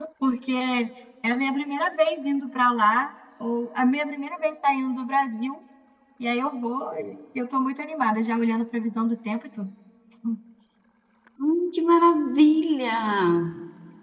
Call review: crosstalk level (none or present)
none